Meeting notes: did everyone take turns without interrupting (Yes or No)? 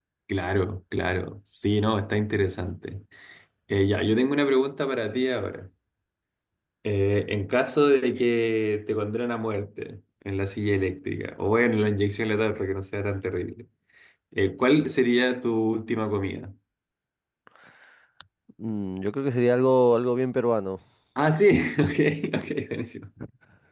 Yes